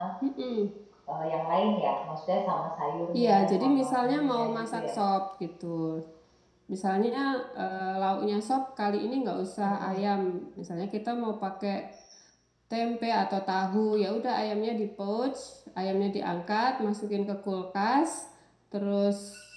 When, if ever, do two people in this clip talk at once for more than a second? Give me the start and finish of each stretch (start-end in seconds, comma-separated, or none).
3.2-5.0